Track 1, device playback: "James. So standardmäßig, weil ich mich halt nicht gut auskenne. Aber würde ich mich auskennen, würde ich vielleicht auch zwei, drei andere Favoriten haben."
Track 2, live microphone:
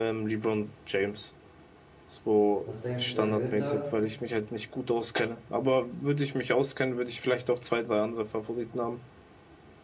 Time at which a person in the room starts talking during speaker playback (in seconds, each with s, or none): 2.6 s